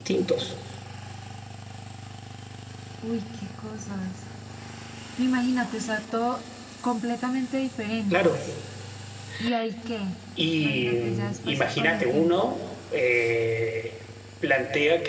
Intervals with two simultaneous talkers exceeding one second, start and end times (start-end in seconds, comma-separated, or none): 10.6-12.5